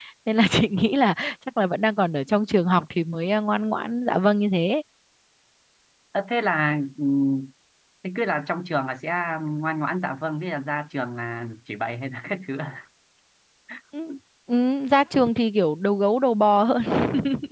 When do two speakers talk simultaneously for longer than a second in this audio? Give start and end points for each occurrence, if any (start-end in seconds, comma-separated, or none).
none